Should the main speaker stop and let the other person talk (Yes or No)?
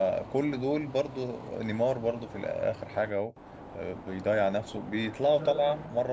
No